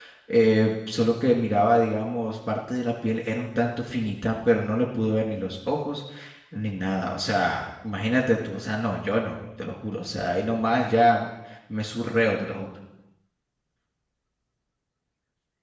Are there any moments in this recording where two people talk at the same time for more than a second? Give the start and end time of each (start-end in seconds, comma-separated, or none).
none